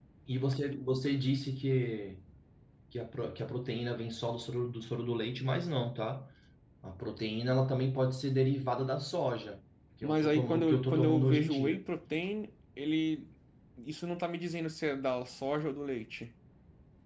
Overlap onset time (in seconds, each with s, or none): 10.0 s